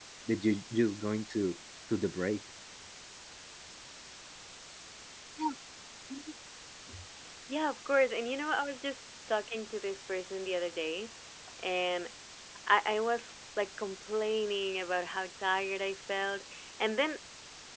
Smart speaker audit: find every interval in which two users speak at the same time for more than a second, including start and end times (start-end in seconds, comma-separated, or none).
none